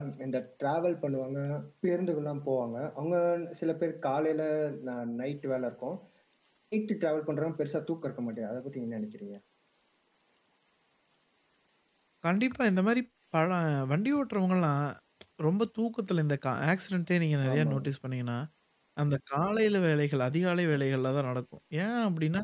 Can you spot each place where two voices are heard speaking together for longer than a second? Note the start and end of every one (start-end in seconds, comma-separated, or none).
none